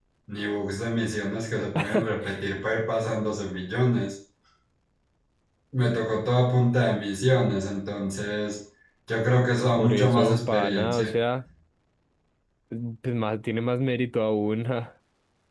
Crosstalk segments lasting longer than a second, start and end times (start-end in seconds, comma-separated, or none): 9.8-11.1